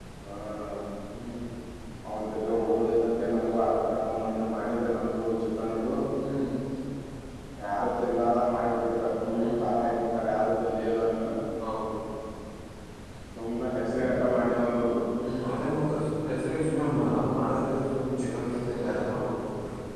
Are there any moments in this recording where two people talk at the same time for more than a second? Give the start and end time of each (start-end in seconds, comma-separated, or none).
none